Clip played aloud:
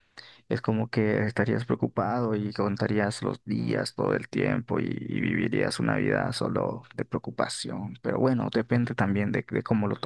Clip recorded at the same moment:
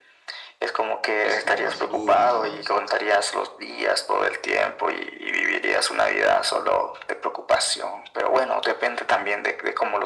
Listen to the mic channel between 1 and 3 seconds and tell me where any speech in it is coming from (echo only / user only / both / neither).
both